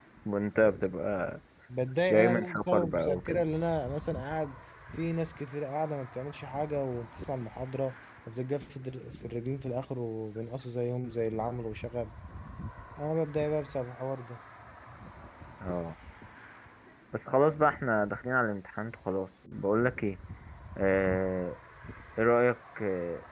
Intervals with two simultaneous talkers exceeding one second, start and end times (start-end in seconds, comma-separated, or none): 2.1-3.4